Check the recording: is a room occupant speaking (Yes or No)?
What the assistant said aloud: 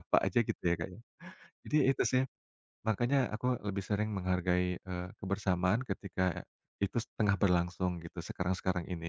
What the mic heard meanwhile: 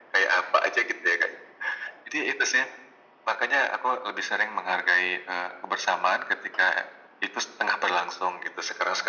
No